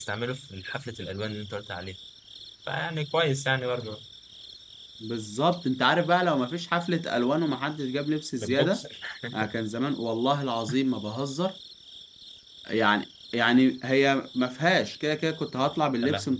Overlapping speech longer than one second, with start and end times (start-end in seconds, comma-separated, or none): none